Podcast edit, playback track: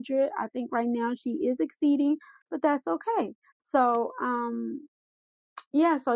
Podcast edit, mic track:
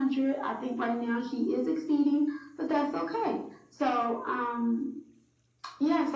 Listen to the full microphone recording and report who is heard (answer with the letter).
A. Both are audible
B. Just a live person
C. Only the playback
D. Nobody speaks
C